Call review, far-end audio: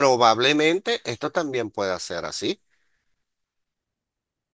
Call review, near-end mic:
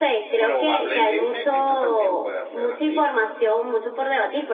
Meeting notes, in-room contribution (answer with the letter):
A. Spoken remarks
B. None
A